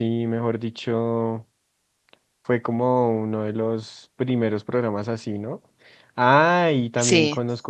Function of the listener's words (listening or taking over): listening